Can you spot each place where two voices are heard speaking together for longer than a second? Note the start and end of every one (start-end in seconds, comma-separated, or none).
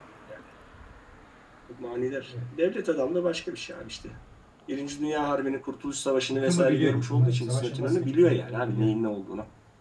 6.3-8.9